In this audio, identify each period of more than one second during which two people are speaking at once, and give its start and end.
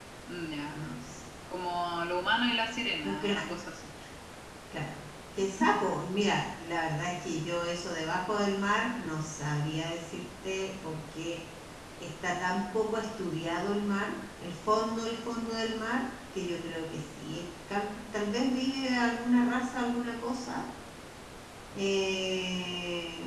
none

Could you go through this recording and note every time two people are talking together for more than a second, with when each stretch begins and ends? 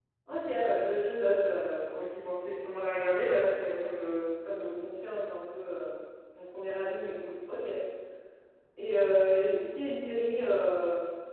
none

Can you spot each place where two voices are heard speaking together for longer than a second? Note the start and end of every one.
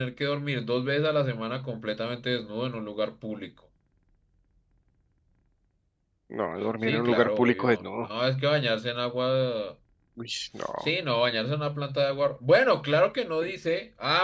6.8-8.1

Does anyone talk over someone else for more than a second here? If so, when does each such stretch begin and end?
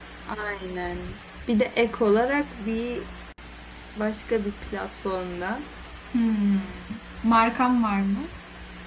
none

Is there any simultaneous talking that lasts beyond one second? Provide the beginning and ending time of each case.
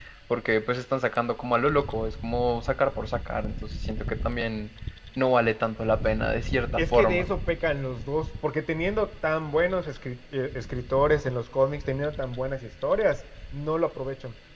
none

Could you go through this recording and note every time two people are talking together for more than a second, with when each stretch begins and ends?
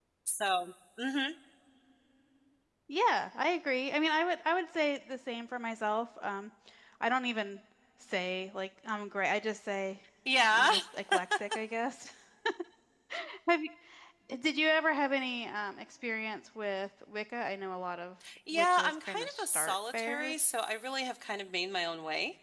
18.5-20.3

